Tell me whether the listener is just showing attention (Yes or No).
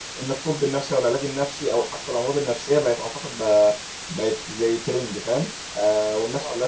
Yes